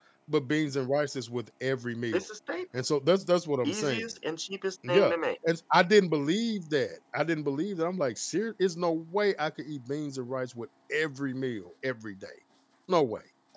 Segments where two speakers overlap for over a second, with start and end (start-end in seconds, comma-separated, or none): none